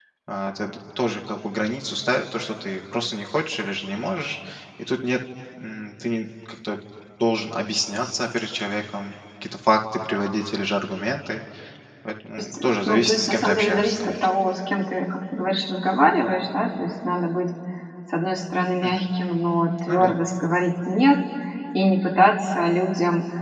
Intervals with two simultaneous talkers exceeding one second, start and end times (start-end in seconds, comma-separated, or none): 12.5-14.2